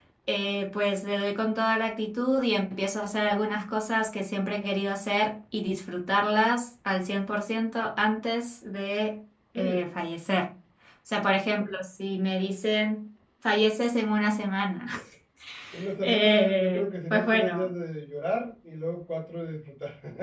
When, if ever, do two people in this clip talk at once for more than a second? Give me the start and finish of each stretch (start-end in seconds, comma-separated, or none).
16.0-17.7